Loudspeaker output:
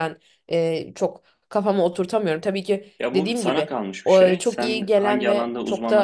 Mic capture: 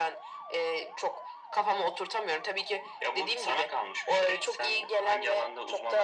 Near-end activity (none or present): none